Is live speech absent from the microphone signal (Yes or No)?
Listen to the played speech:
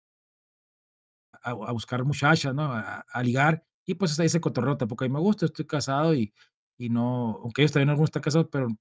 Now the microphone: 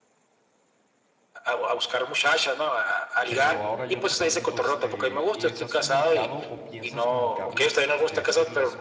No